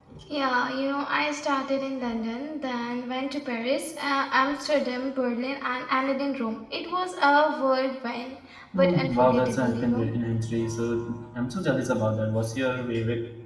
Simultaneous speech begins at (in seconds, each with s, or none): 8.7 s